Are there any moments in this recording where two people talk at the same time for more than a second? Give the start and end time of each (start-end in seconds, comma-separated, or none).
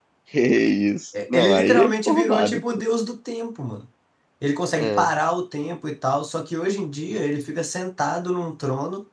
1.3-2.6